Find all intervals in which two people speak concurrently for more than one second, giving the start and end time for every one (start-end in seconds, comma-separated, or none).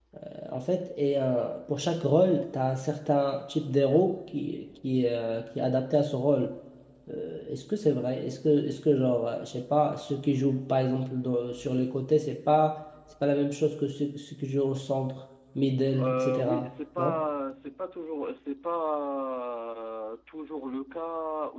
15.9-17.3